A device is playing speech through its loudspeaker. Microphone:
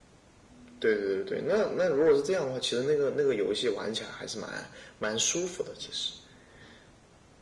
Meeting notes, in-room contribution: none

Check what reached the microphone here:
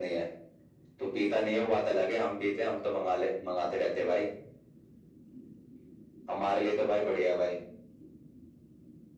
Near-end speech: none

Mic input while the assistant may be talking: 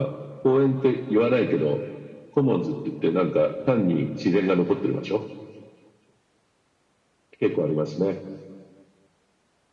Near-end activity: none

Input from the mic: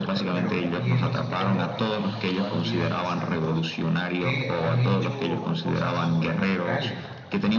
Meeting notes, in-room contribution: present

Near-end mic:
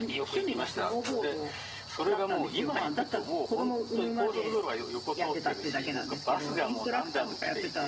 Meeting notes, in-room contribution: present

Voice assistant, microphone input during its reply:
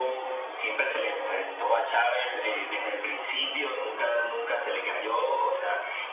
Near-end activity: none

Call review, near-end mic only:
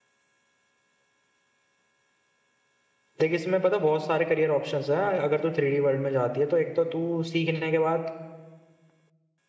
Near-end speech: present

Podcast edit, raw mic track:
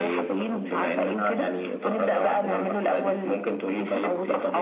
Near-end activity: none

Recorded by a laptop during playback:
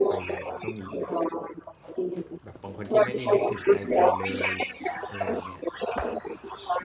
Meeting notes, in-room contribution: present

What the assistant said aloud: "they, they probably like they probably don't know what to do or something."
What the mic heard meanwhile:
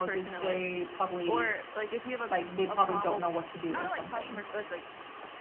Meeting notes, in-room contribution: present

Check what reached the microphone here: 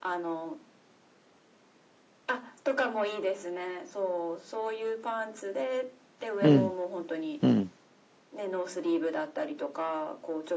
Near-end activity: present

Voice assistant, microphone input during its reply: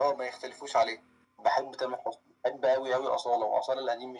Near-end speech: none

